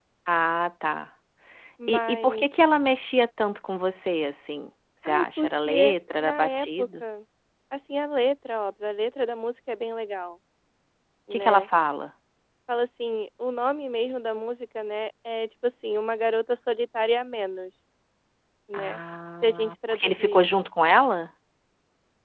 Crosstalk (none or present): present